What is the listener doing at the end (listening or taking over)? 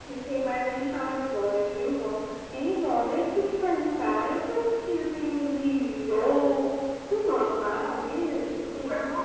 taking over